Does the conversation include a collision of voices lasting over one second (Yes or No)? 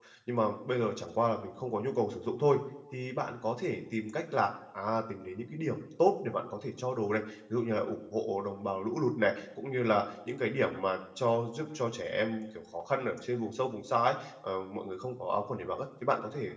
No